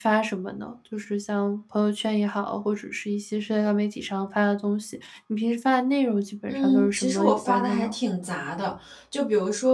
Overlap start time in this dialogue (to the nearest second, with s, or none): 6 s